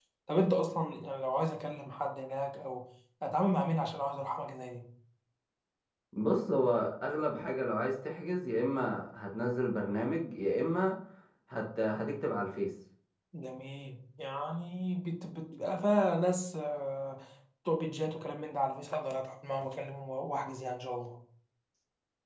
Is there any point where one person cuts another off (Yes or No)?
No